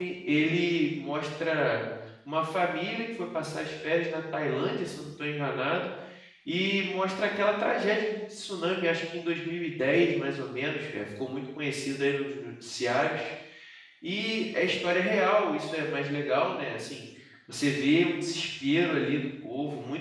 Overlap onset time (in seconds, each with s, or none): none